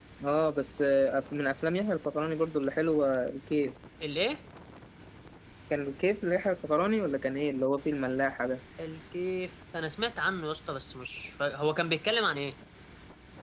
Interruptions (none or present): none